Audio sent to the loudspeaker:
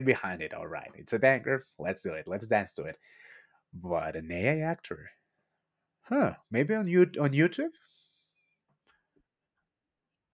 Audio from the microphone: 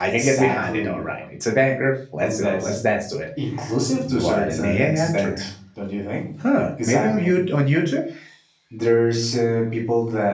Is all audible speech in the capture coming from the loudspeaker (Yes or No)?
No